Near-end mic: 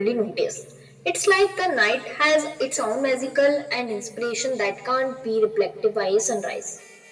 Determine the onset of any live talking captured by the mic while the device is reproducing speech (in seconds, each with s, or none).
none